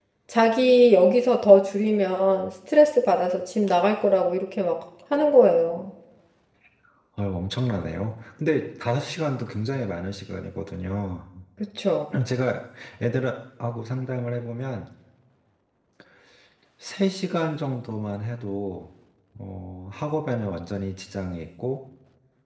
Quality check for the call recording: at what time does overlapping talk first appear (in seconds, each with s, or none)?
none